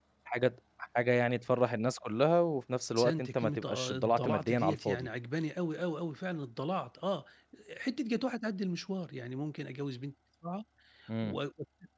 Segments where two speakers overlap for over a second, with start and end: 3.0-5.1

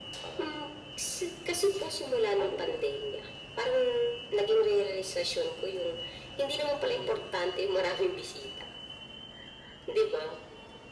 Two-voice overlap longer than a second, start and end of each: 1.5-2.8

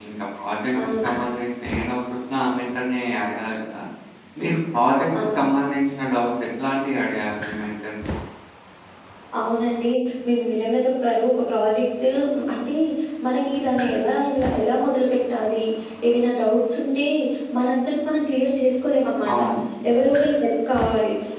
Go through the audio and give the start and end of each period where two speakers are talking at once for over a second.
none

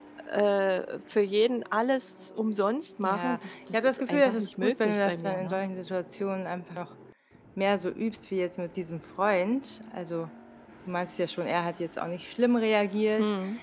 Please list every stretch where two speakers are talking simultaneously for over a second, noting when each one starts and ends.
3.0-5.6

